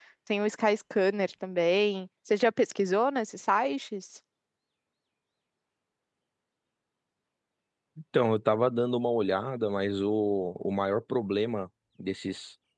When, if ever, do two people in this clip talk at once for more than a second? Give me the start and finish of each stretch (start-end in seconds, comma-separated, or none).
none